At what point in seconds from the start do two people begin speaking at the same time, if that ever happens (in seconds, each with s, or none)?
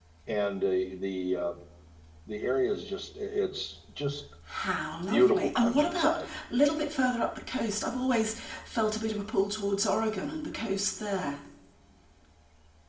5.0 s